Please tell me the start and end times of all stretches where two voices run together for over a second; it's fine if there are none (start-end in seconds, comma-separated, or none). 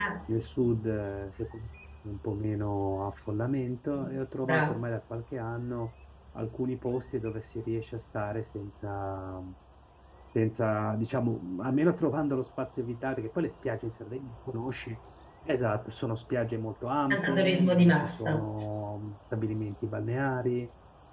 17.1-18.4